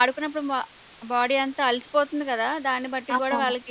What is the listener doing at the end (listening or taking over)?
listening